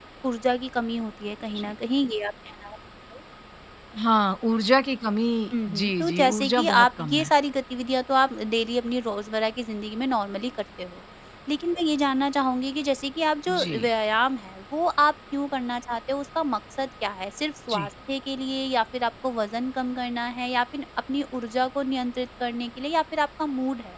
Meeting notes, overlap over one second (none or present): present